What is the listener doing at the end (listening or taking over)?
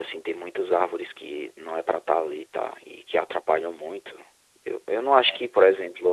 listening